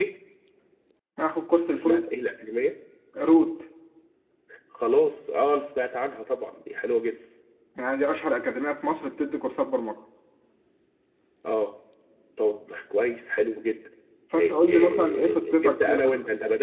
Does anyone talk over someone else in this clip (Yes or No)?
Yes